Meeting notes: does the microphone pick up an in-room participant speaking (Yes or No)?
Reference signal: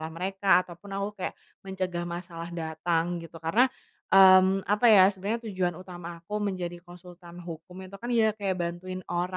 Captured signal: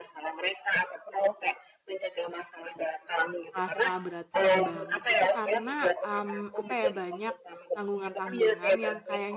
Yes